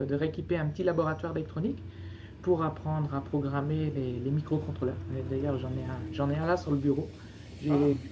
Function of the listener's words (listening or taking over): listening